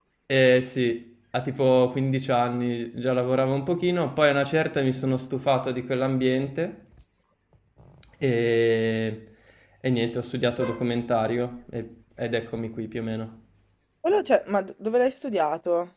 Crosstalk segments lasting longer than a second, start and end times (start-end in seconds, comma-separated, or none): none